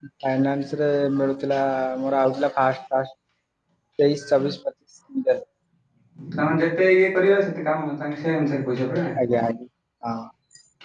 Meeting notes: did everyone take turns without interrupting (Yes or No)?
Yes